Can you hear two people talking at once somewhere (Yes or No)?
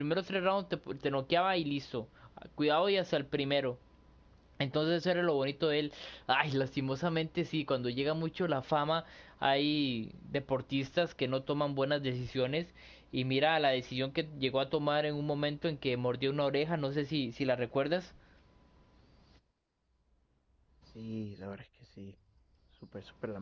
No